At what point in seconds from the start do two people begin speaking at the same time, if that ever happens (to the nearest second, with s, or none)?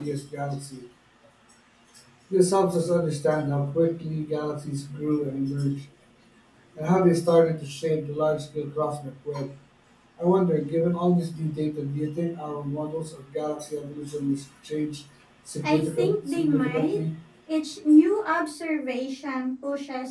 16 s